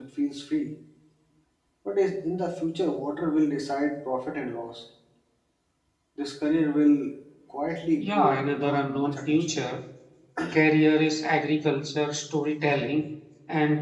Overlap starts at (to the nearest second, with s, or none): 8 s